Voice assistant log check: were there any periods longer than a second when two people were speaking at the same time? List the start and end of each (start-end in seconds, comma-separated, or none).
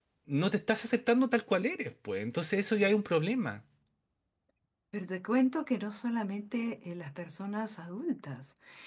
none